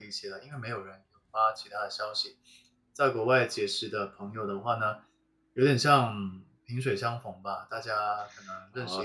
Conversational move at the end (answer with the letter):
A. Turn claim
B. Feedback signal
A